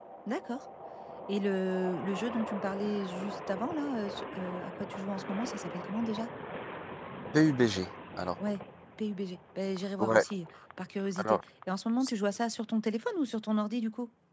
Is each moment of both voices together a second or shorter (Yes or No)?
Yes